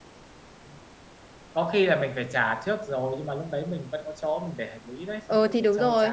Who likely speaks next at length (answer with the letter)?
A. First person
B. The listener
B